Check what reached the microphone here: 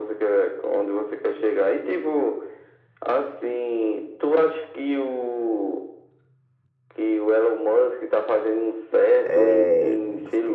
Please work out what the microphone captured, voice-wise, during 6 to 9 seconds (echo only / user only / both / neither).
echo only